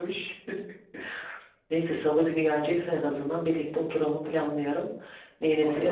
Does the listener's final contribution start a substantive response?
Yes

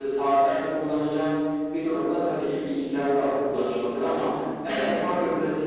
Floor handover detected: No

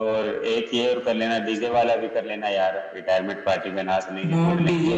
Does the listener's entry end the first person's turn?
Yes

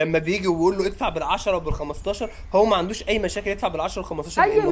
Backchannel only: No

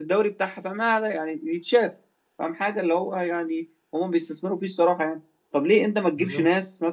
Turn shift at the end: No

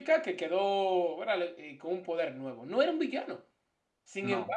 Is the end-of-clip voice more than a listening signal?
No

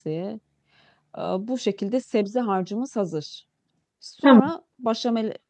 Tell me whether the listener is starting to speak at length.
No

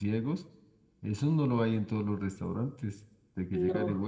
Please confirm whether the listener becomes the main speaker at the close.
No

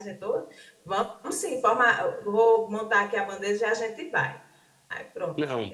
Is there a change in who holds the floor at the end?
Yes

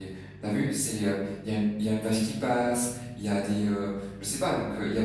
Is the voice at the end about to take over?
No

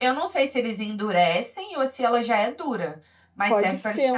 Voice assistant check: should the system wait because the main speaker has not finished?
No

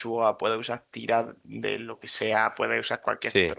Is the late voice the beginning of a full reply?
No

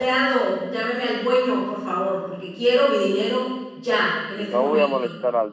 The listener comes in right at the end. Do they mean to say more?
Yes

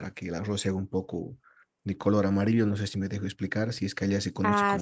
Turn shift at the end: Yes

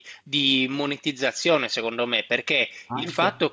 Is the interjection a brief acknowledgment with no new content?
Yes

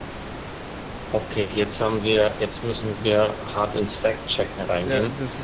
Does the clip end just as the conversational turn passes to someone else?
Yes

